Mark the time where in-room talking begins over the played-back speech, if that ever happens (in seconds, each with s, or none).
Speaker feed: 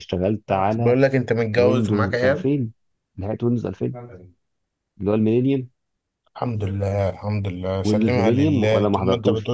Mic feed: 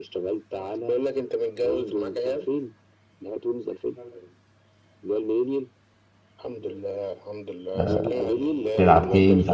7.8 s